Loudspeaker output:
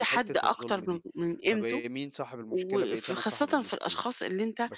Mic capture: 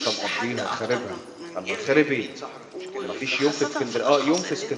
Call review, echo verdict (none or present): present